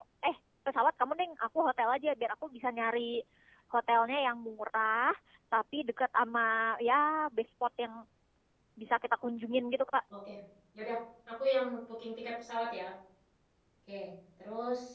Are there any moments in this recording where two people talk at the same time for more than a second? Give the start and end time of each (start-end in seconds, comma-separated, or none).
none